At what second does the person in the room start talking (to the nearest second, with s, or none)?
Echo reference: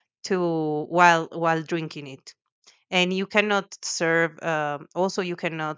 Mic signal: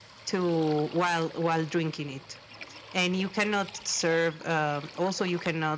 none